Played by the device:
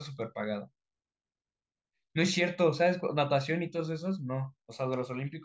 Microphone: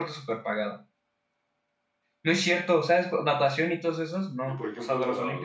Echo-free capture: No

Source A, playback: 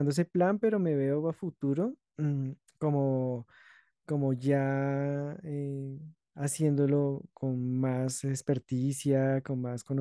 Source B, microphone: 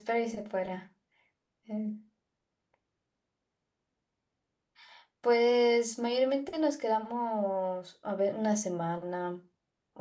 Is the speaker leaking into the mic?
No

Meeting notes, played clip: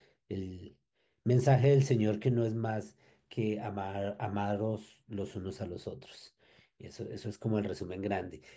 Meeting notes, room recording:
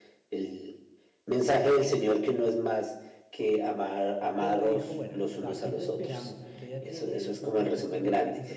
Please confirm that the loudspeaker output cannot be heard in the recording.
No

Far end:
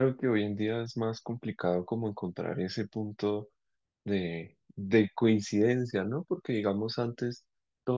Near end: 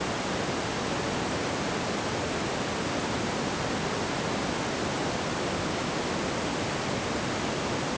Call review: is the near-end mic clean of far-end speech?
Yes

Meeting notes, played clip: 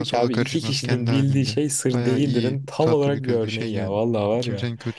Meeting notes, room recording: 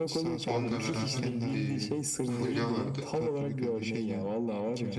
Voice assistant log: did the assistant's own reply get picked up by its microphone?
Yes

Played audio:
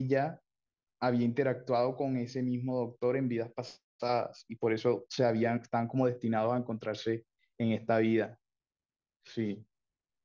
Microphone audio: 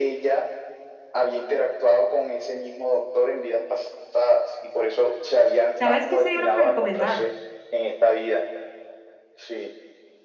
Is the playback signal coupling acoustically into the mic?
Yes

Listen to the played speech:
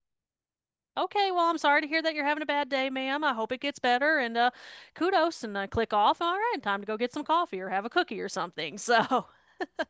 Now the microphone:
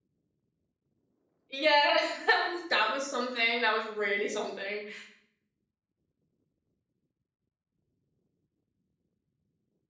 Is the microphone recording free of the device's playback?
Yes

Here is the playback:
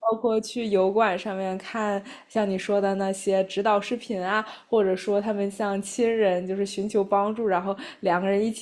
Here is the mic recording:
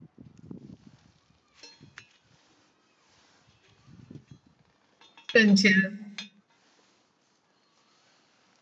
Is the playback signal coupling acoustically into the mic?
No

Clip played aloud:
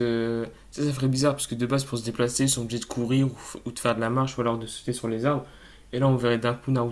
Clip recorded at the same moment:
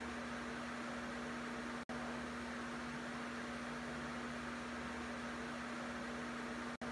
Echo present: No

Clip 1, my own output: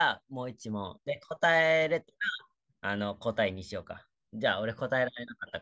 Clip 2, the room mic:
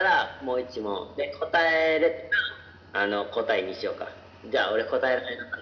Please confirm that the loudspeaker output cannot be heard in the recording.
No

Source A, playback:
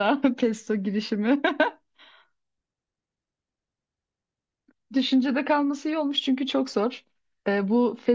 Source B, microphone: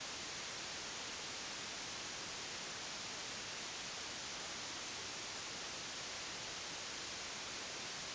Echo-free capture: Yes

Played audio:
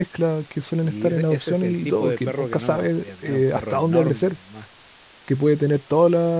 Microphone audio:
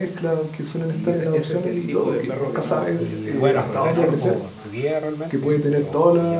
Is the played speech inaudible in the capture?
No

